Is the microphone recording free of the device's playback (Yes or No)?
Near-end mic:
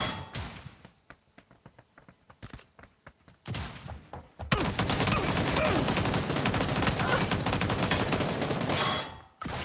Yes